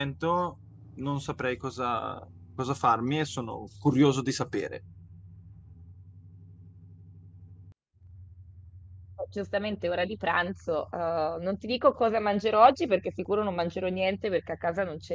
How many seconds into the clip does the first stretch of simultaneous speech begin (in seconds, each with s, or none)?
none